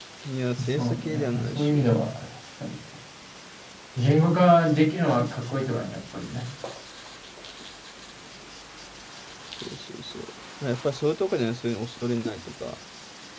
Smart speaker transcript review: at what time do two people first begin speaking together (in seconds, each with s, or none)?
0.6 s